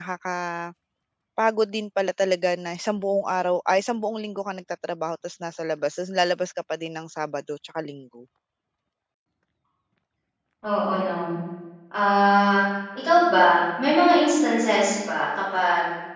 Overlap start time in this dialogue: none

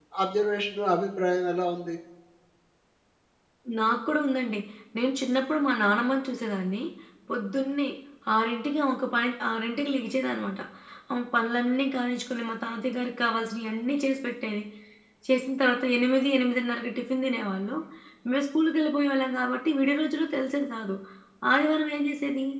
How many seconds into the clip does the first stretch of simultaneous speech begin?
none

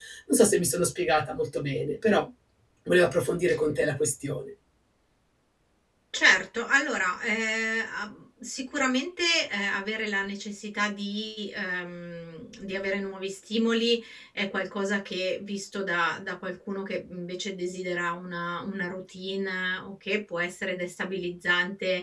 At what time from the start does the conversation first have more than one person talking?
none

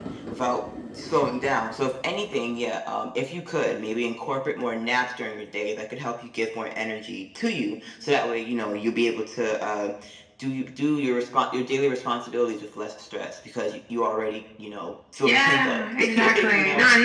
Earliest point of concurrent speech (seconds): 15.2 s

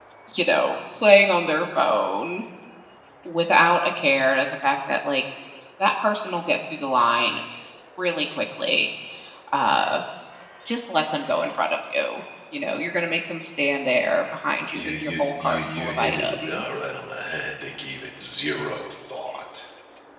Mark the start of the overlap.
14.7 s

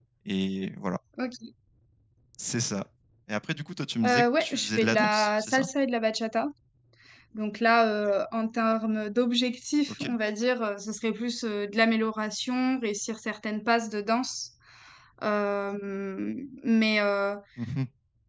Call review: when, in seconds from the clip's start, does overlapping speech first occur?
4.0 s

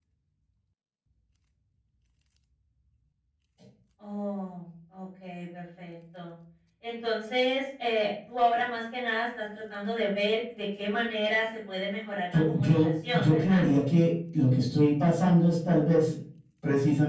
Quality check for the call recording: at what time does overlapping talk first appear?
12.3 s

